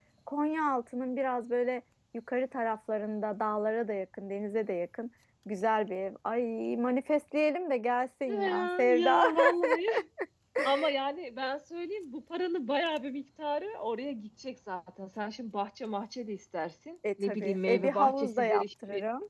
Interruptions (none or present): present